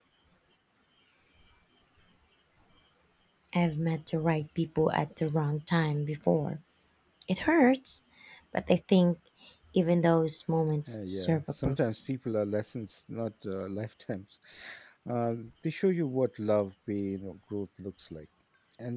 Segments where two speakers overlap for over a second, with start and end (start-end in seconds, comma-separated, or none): 10.9-12.1